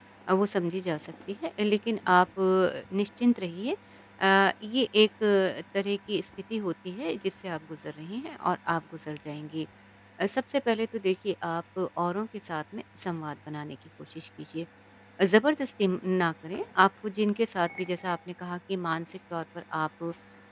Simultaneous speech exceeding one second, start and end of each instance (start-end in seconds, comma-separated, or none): none